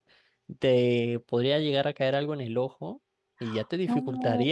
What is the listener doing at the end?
listening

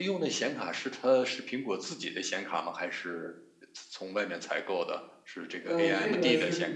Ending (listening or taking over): taking over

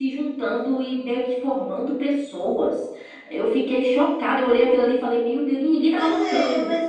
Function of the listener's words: taking over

